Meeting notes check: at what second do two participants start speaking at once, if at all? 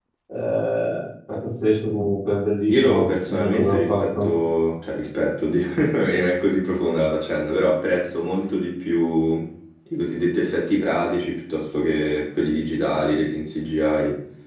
2.7 s

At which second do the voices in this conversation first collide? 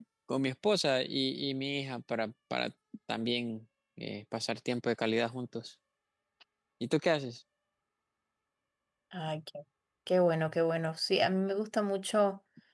none

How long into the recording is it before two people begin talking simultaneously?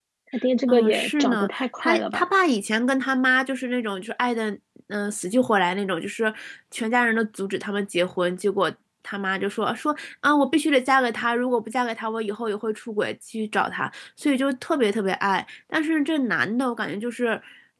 0.7 s

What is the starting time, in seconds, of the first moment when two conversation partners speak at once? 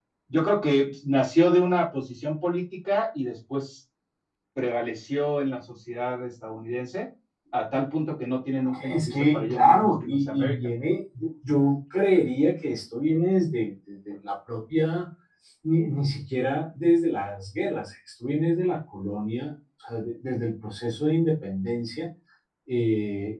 8.6 s

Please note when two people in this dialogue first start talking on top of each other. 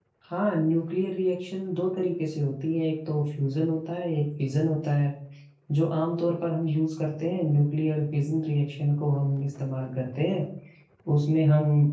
none

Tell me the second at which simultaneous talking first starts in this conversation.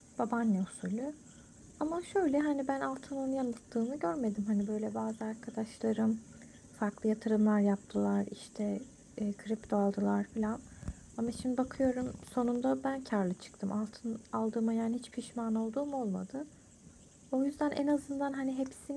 none

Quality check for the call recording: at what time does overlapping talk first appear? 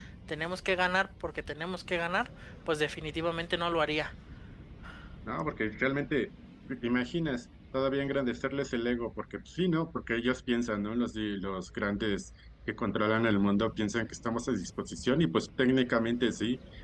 none

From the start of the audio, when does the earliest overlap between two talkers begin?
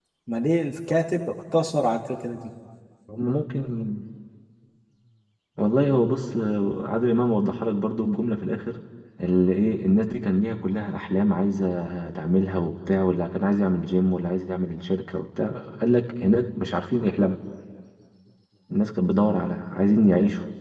none

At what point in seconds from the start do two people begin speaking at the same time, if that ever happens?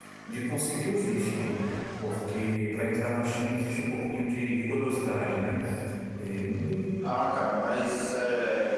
none

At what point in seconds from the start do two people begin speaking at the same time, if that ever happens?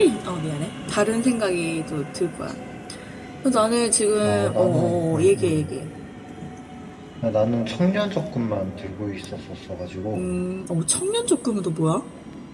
4.2 s

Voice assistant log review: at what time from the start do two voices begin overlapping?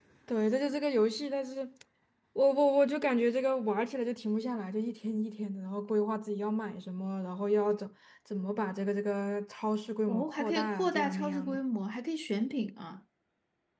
10.1 s

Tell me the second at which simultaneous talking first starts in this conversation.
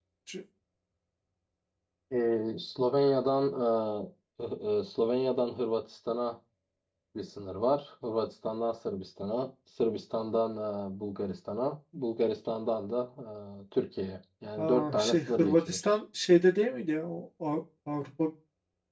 14.6 s

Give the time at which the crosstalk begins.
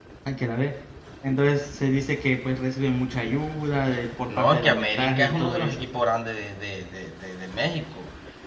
4.2 s

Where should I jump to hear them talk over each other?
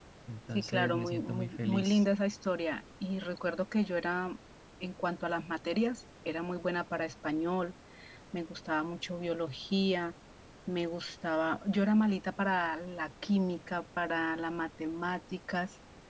0.5 s

